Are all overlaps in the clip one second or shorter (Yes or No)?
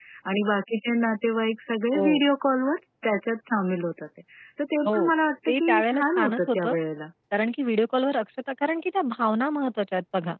No